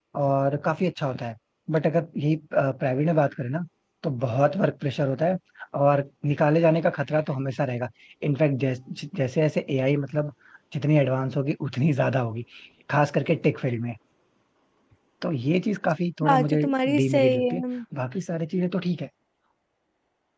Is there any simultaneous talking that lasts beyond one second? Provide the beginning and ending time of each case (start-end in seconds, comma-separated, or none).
16.2-17.6